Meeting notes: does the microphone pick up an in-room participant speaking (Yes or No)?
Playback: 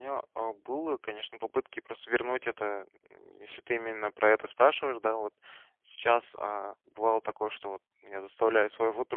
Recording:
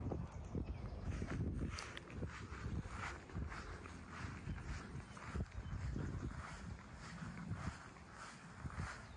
No